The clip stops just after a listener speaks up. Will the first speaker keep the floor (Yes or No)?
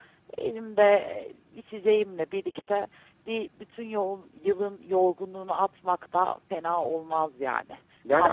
No